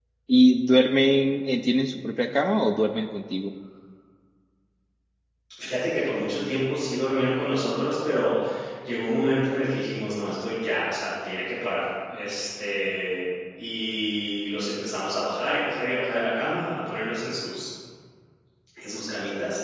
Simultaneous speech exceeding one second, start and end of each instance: none

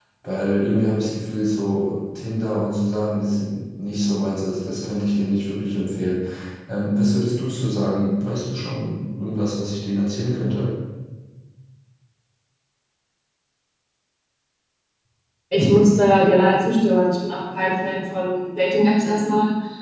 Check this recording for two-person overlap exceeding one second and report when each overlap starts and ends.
none

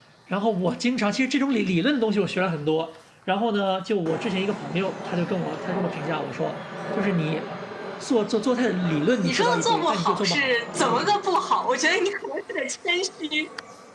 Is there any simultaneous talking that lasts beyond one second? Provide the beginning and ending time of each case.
9.1-11.2

